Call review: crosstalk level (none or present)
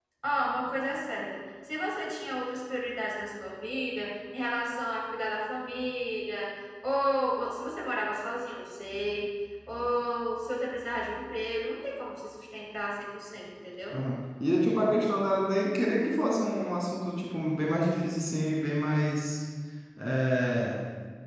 none